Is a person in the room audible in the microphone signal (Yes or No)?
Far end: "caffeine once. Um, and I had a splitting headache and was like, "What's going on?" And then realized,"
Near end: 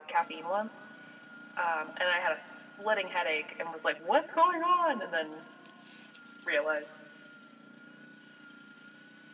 No